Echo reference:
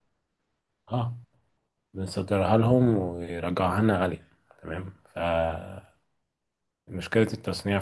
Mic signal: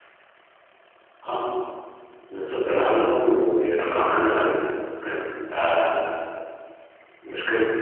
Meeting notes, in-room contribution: none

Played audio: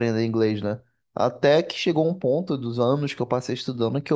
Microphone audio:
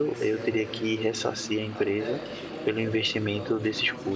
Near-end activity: present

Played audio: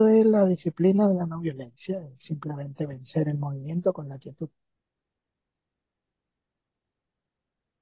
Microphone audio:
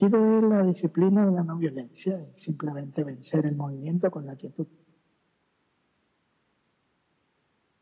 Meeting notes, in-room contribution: none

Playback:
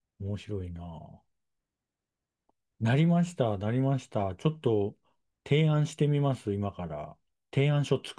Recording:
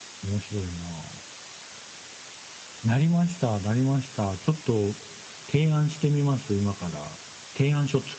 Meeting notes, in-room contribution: none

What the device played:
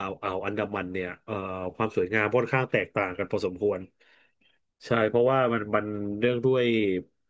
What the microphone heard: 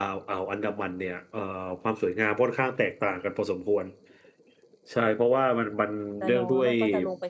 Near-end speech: present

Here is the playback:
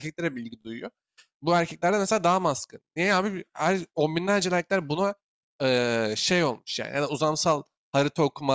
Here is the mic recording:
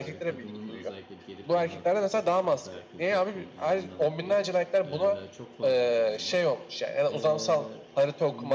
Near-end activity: present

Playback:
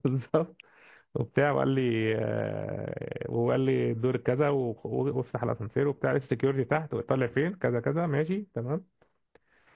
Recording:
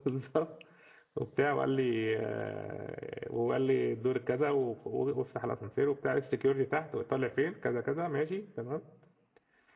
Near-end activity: none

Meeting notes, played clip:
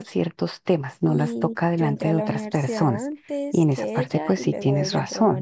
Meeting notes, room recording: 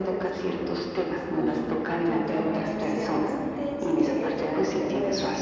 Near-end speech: none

